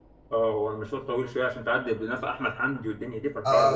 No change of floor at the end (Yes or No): No